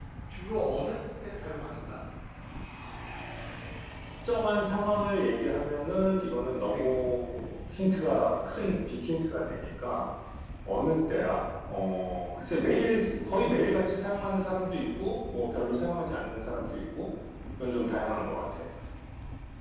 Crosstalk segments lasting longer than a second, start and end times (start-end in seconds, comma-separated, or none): none